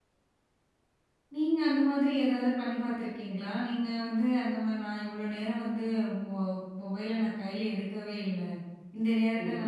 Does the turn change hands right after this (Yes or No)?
No